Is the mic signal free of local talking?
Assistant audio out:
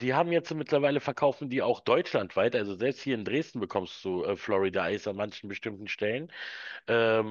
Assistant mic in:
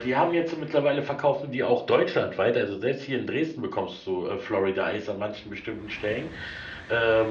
Yes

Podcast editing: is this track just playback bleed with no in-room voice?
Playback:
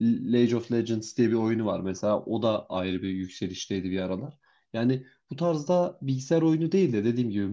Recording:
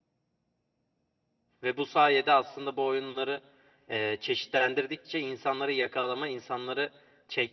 No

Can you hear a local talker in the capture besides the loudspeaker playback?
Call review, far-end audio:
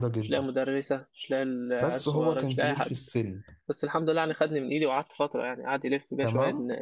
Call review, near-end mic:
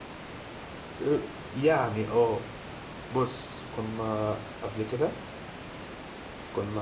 Yes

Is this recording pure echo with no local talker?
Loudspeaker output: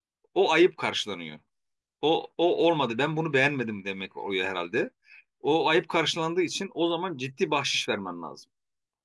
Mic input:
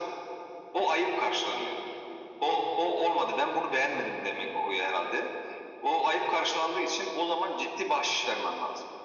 Yes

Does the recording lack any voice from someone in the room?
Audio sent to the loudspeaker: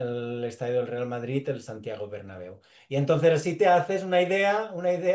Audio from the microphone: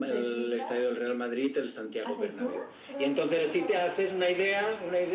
No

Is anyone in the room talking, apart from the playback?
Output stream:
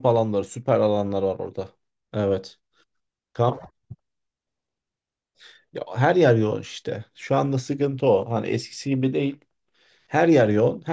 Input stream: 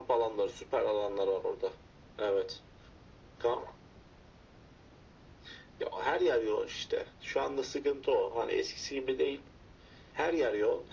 No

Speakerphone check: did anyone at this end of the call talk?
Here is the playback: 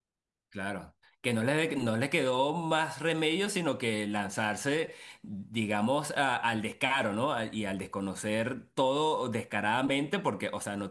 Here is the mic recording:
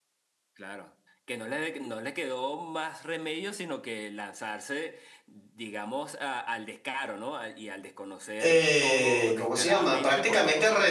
Yes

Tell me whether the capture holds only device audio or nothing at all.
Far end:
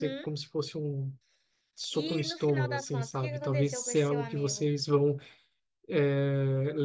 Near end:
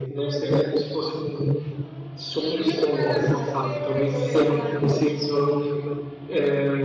Yes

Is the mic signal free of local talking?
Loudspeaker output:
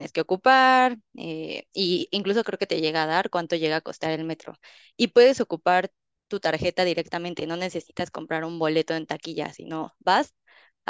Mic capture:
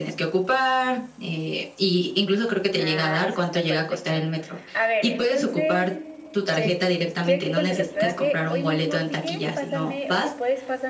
No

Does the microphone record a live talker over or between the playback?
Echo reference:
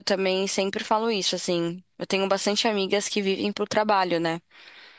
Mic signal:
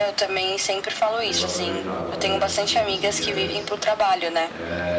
Yes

